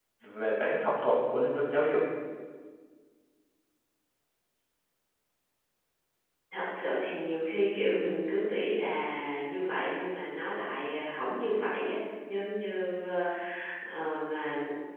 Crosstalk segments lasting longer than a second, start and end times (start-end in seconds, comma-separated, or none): none